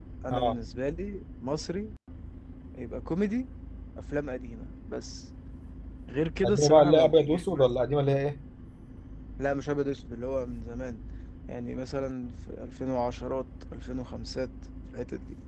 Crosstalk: present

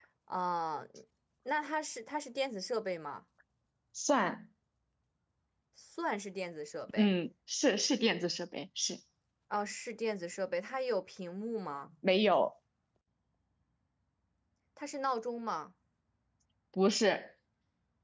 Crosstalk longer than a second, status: none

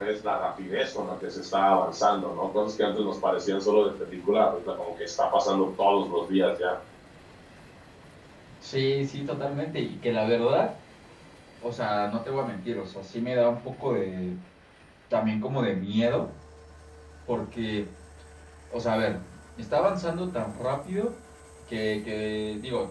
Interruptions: none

